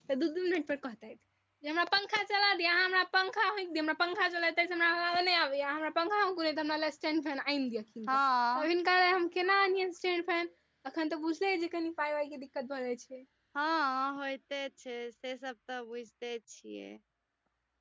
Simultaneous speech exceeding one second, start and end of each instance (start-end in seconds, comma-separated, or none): none